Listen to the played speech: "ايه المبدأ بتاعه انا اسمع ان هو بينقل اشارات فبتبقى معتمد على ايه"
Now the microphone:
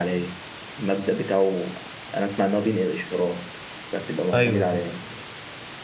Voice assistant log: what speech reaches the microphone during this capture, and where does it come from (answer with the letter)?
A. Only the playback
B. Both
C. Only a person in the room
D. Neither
B